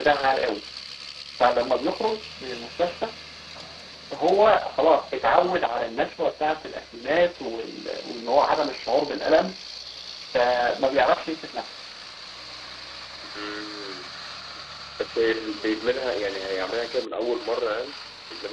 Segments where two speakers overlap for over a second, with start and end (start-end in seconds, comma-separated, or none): none